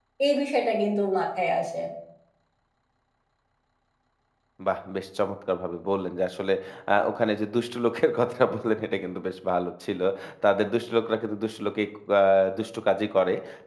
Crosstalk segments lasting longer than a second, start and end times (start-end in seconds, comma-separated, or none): none